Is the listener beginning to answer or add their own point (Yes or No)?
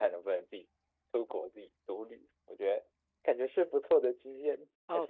Yes